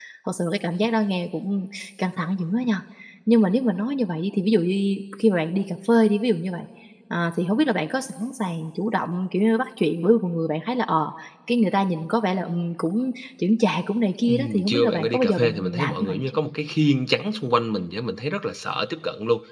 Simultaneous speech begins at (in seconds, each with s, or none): 14.3 s